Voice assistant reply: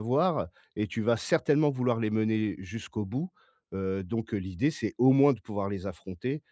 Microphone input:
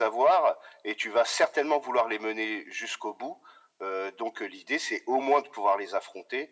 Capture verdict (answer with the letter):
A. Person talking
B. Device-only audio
B